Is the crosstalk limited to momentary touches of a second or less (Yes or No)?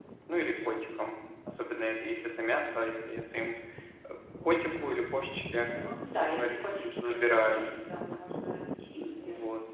No